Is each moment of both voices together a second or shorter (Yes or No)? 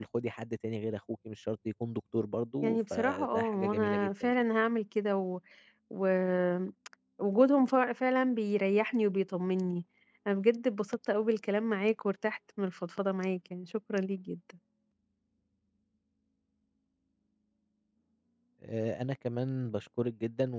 No